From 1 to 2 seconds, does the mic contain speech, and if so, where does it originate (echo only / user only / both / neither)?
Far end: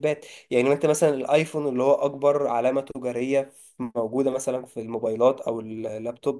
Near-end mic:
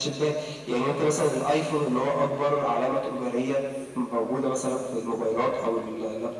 echo only